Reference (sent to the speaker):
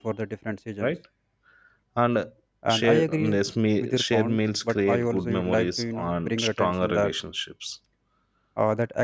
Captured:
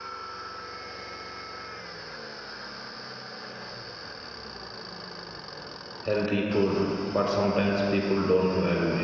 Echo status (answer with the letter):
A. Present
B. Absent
B